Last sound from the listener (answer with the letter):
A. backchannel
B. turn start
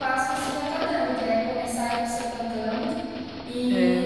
A